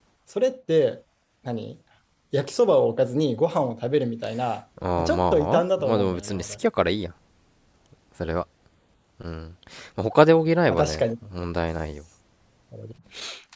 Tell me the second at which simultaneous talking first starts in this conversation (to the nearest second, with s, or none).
5 s